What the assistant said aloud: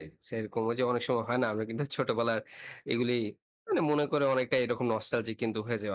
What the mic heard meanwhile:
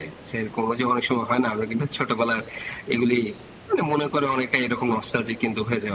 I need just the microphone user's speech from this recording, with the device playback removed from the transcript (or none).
none